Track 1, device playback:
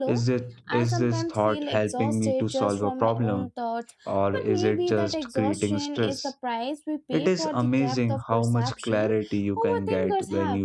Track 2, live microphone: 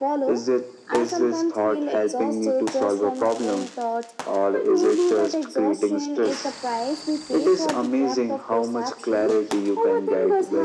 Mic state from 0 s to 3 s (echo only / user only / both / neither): echo only